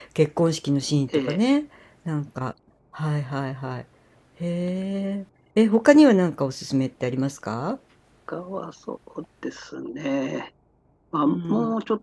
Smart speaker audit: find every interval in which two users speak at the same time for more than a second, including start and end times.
none

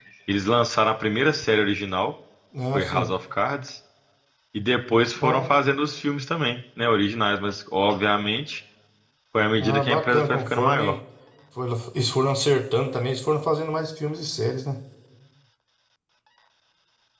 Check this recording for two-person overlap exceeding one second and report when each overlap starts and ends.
9.6-10.9

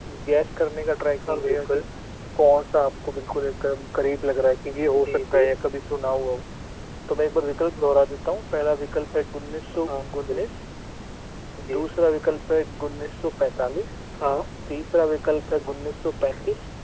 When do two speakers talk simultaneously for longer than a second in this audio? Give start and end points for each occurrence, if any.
none

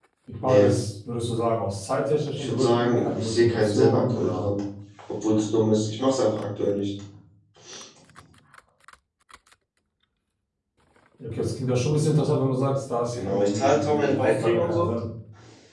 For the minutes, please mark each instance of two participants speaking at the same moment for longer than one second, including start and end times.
2.4-4.5, 13.1-14.9

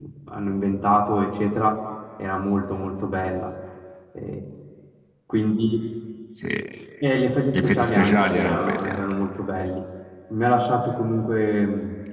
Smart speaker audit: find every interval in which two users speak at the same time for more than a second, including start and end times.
7.5-9.0

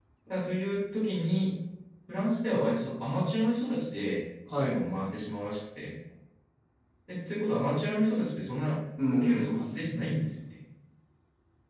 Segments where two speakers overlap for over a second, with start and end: 9.1-10.3

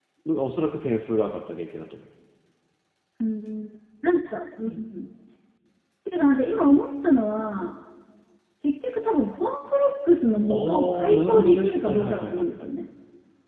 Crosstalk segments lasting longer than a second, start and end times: 10.5-12.4

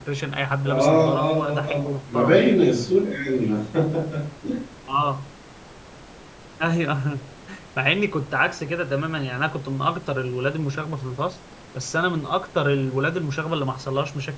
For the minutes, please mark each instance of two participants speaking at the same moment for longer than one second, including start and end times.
0.6-2.4

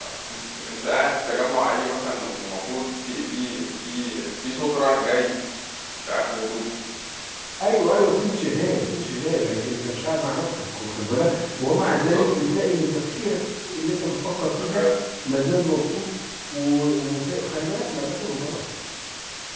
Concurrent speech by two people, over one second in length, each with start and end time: none

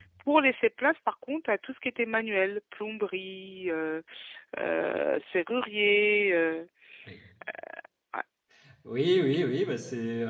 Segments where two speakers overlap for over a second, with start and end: none

